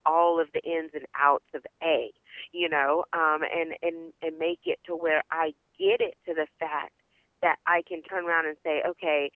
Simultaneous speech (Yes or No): No